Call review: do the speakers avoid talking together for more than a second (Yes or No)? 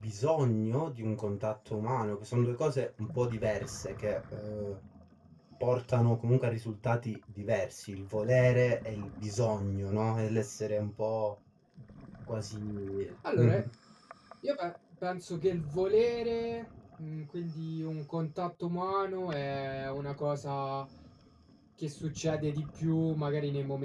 Yes